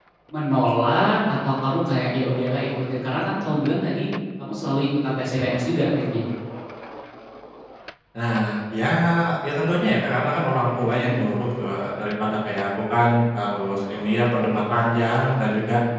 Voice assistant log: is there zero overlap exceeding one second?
Yes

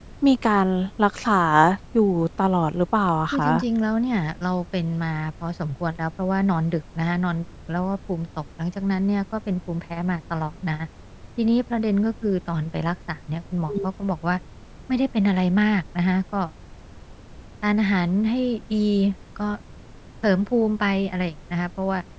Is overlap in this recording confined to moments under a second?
Yes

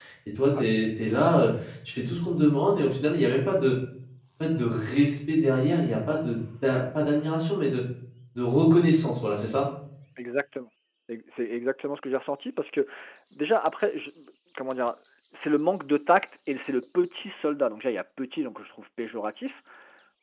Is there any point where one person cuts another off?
No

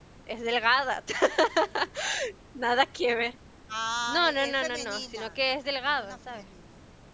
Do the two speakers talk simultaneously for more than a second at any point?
Yes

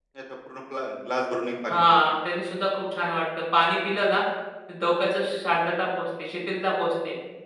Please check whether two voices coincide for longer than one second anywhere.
No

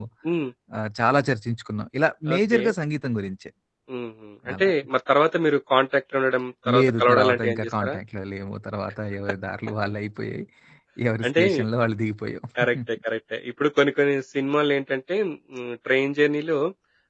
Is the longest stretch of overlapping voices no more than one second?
No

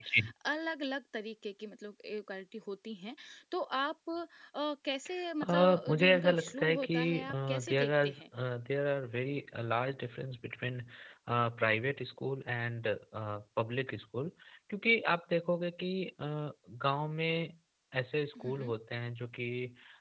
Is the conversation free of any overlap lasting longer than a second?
No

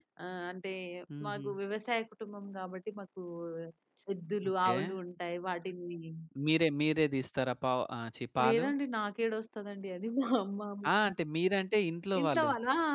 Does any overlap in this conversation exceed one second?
No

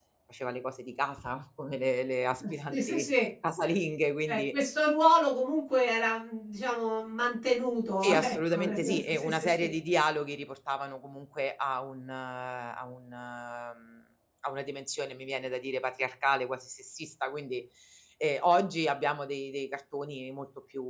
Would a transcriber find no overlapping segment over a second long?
No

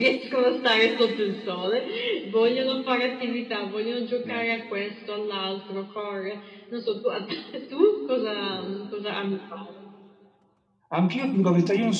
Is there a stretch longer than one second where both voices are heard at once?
No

